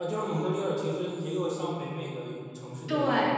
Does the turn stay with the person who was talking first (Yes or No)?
No